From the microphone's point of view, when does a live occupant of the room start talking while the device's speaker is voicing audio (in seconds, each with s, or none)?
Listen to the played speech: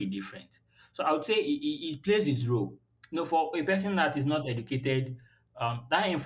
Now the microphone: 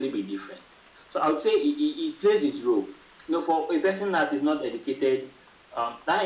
none